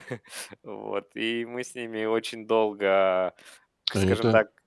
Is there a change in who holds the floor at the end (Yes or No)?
Yes